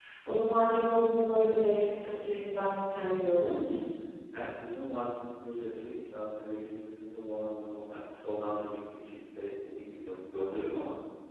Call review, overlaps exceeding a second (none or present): none